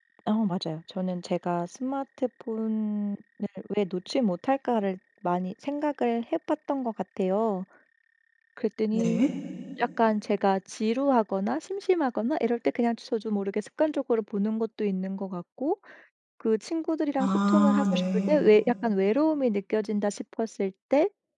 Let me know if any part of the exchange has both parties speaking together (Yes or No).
Yes